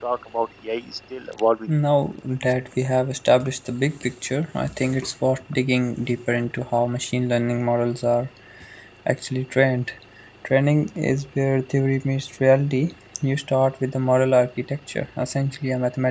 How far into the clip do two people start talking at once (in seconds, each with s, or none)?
none